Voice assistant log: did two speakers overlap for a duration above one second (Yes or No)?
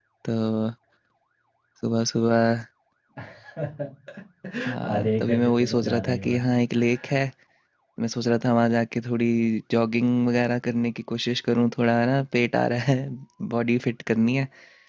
Yes